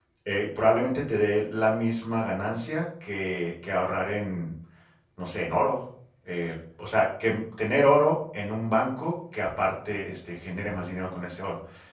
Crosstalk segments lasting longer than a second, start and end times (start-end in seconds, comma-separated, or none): none